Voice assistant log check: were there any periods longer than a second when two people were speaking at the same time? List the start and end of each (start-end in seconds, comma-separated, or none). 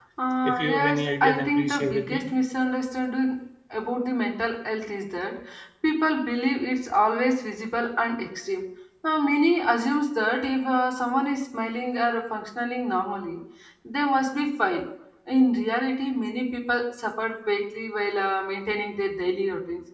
0.5-2.2